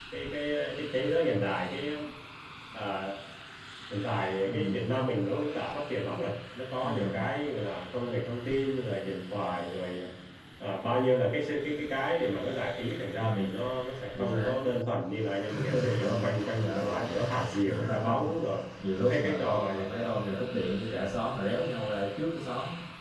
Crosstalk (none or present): present